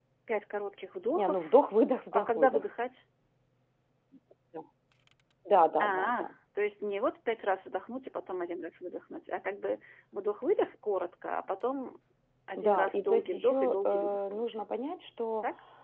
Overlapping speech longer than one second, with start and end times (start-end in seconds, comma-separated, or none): 12.6-14.6